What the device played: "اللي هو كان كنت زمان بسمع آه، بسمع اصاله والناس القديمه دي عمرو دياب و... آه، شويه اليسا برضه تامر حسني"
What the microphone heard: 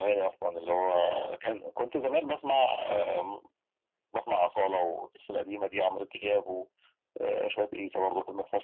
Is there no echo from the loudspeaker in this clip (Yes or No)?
No